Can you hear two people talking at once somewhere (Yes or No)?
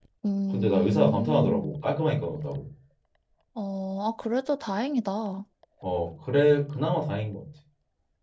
Yes